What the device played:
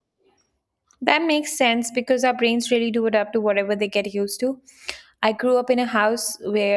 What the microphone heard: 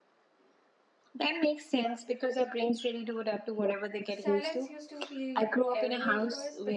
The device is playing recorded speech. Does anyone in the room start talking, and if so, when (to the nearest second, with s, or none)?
4 s